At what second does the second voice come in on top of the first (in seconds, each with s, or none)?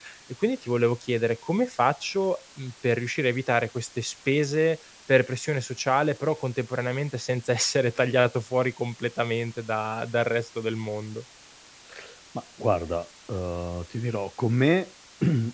none